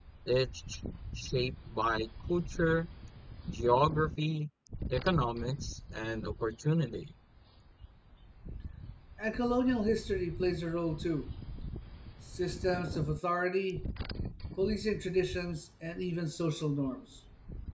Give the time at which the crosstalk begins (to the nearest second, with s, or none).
none